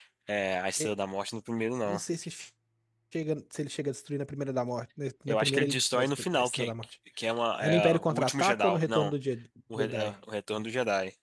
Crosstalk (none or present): present